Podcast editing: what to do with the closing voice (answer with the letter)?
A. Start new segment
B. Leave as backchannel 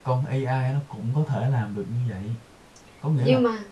B